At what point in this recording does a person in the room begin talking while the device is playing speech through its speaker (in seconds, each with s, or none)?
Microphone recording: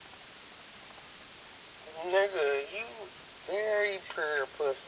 none